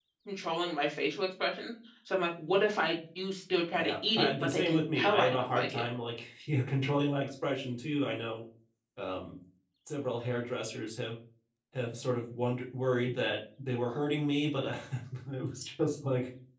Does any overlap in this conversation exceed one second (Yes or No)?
Yes